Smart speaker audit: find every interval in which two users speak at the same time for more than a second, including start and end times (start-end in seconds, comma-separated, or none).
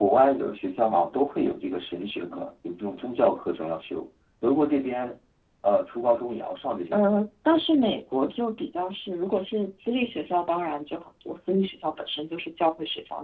none